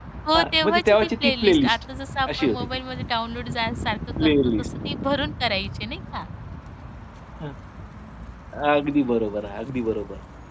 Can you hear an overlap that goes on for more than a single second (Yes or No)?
Yes